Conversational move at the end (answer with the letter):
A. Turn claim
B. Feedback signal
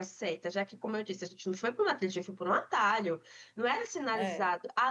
B